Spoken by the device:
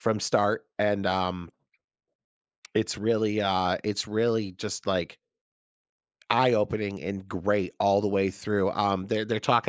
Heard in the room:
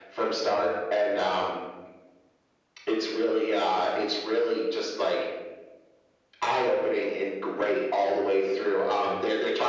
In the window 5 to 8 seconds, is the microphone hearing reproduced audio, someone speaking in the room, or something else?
echo only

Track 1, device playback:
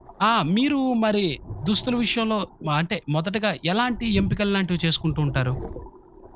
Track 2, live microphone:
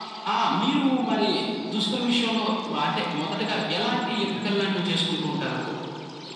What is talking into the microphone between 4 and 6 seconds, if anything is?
echo only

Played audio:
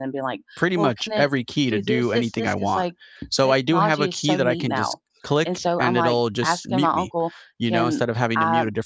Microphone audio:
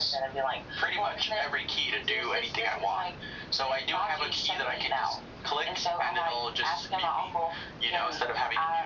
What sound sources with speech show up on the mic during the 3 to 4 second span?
echo only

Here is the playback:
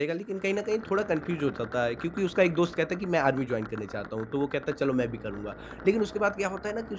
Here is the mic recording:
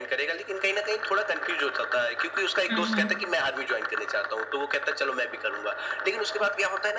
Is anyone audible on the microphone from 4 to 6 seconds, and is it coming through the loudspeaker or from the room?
echo only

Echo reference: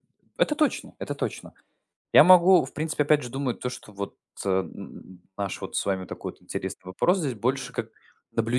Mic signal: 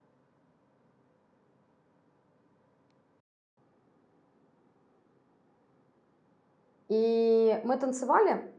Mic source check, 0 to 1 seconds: neither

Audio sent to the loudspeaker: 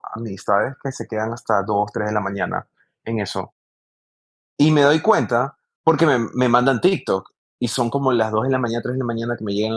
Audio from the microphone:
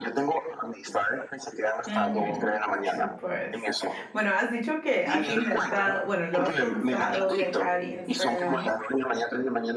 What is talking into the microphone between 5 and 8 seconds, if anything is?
both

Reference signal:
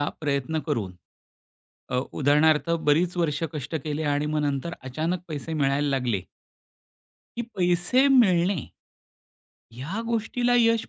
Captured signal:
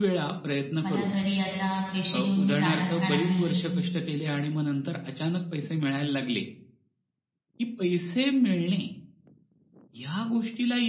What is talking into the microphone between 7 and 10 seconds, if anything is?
echo only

